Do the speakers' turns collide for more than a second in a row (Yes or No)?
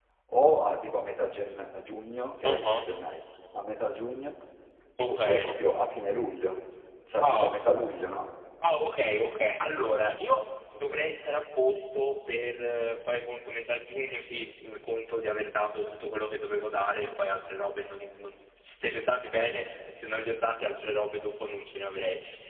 No